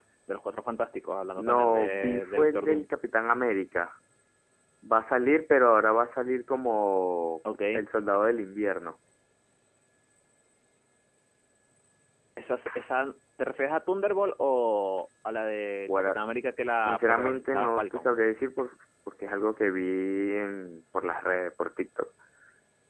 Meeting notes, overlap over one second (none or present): present